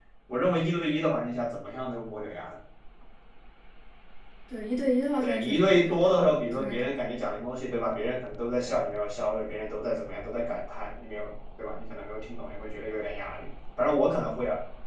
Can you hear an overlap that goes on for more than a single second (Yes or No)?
Yes